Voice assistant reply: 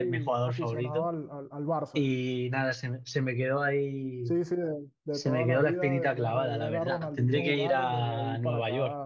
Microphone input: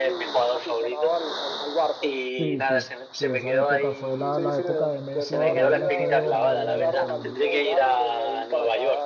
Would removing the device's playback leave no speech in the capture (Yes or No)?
No